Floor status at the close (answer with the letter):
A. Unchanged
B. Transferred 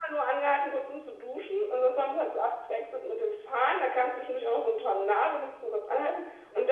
A